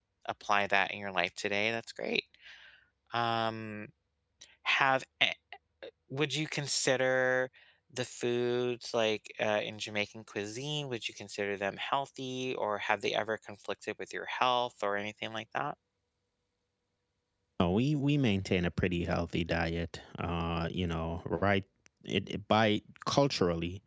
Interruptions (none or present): none